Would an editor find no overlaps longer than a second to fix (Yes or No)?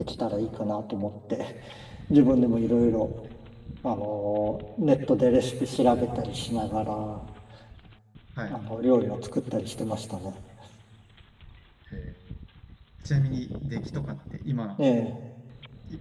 Yes